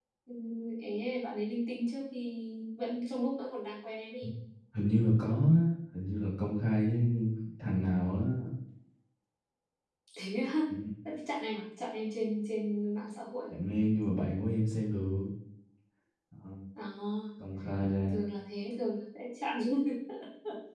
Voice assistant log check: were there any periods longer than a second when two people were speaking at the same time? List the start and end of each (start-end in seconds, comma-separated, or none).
none